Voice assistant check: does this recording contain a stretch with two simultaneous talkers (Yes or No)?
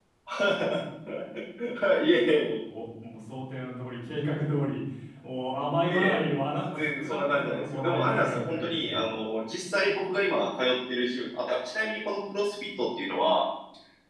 Yes